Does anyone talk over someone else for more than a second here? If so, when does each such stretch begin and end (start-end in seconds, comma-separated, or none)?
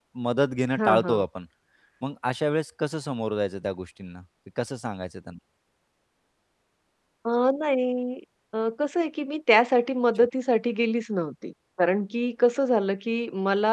none